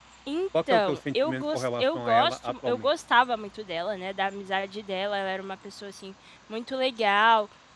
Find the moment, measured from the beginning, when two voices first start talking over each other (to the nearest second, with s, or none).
1 s